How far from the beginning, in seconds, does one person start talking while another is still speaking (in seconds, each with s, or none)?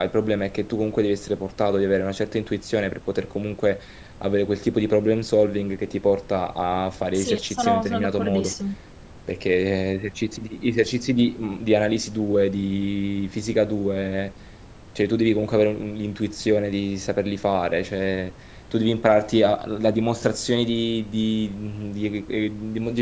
7.2 s